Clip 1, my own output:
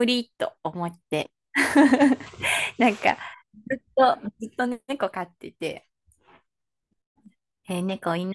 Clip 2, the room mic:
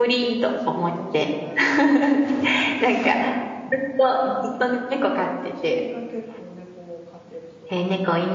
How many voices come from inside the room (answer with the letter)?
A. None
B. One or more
B